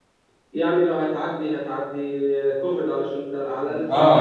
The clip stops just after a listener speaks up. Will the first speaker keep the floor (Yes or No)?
No